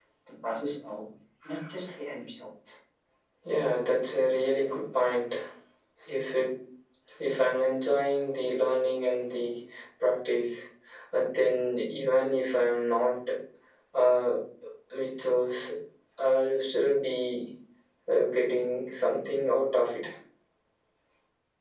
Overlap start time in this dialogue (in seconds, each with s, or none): none